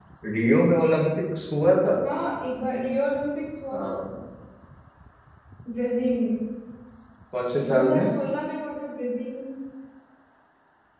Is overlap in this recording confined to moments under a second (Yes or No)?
Yes